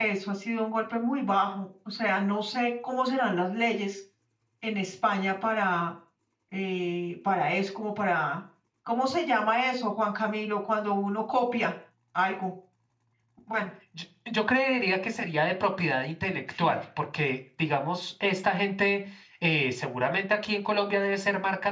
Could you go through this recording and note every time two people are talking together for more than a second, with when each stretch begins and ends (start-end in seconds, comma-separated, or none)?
none